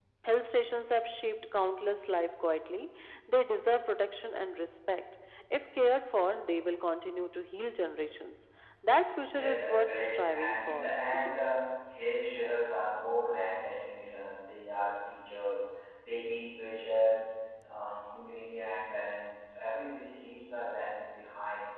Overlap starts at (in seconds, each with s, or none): 9.3 s